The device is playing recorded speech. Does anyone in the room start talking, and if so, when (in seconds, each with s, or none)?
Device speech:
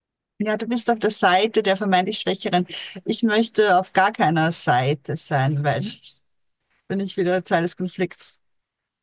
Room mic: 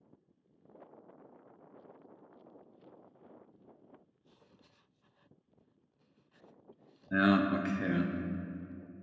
7.1 s